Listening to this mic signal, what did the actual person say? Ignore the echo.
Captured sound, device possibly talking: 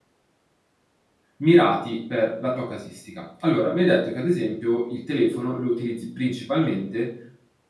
mirati per la tua casistica. Allora, mi hai detto che ad esempio il telefono lo utilizzi principalmente,

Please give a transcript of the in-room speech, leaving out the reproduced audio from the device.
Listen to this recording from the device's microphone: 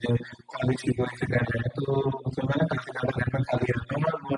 none

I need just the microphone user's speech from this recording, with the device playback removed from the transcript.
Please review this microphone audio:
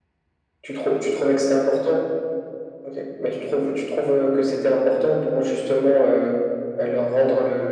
none

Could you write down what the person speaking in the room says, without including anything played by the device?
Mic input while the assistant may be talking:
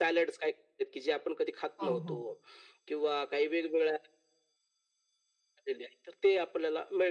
हो, हो.

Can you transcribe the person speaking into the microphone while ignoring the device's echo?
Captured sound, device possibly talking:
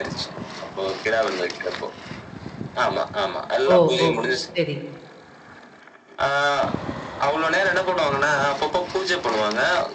ஓ! ஓ! சரி,

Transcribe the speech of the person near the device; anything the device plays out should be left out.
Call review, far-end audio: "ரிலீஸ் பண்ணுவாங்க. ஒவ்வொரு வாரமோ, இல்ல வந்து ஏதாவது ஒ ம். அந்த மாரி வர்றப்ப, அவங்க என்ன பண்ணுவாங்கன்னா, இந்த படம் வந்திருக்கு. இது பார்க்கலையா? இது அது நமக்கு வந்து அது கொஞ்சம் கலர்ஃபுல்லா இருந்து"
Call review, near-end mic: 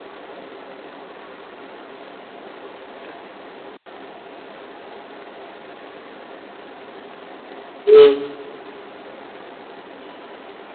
ம்.

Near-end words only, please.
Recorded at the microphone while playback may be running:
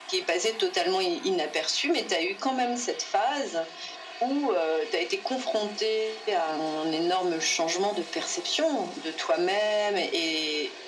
none

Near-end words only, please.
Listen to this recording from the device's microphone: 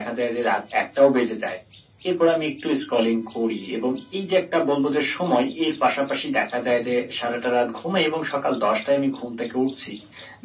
none

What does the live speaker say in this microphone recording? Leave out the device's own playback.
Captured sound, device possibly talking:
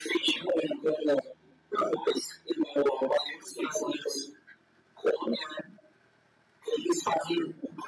none

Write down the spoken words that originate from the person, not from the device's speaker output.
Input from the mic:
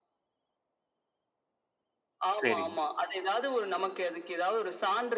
சரிங்க,

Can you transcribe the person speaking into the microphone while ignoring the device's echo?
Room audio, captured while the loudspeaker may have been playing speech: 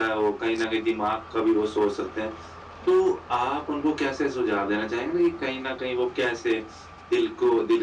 none

